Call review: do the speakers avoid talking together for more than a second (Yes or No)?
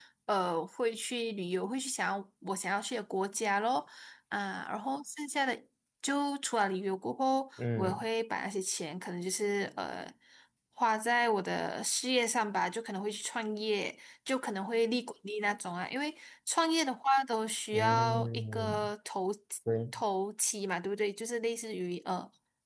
No